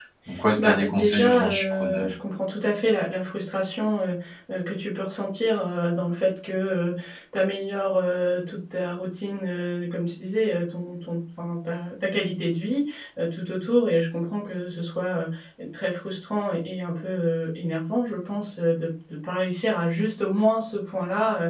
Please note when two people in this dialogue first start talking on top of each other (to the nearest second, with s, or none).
1 s